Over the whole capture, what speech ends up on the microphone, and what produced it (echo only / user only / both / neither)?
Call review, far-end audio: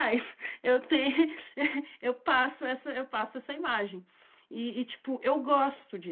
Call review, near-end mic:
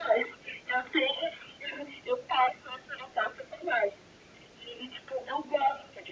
echo only